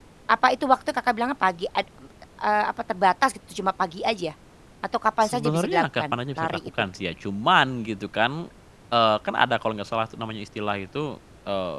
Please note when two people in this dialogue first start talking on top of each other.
5.2 s

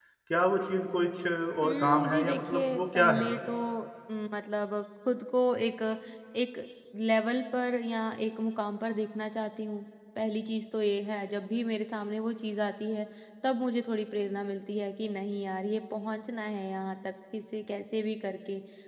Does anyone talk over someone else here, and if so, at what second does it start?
1.6 s

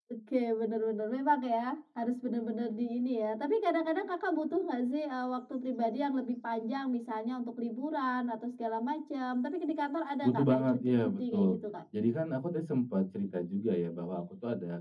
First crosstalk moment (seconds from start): 10.2 s

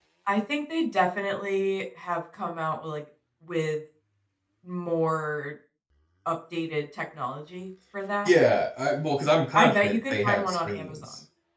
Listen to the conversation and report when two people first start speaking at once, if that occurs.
9.6 s

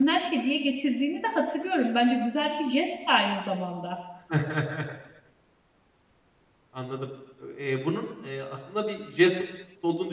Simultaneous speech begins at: none

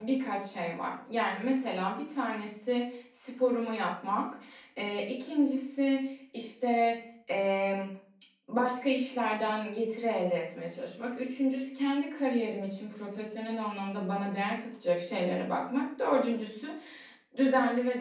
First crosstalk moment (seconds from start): none

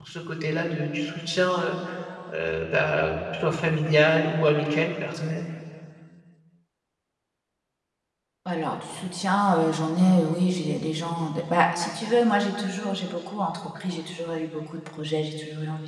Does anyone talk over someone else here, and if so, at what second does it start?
none

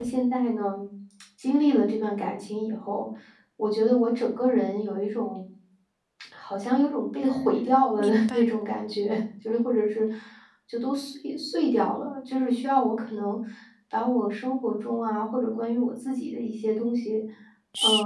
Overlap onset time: 7.2 s

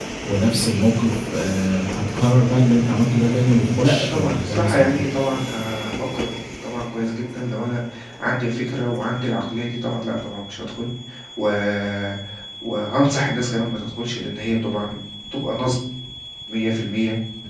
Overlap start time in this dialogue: 3.8 s

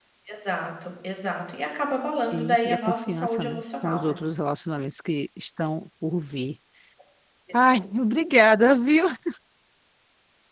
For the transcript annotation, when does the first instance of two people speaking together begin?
2.3 s

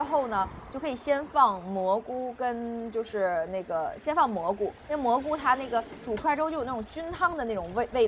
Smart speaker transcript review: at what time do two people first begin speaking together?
none

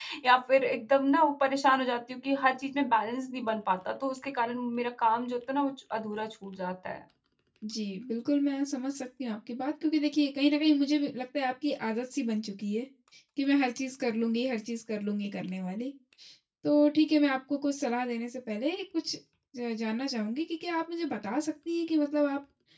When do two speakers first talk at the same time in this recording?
none

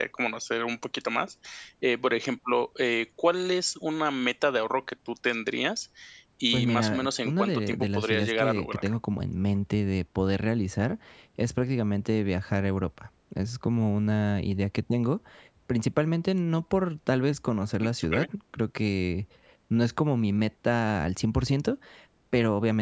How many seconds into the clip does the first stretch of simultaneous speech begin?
6.5 s

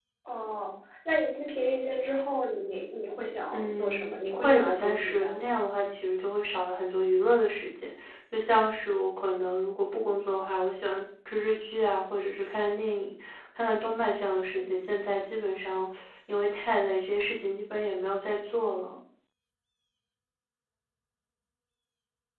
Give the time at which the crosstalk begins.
3.5 s

